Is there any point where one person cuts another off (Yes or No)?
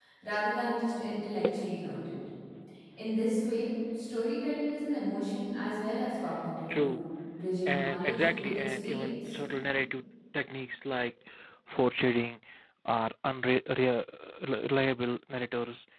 Yes